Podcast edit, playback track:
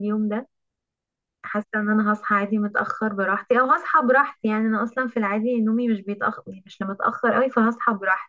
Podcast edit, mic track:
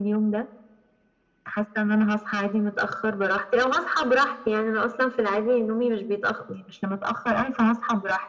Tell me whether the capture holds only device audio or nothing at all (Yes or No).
Yes